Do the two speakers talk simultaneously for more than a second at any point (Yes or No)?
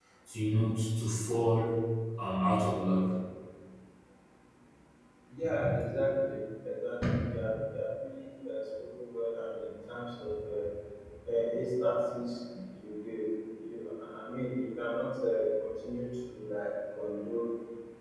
No